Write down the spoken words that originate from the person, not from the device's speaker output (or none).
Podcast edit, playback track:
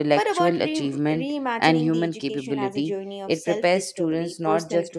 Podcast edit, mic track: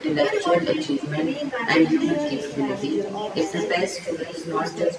clear instructions or answer the key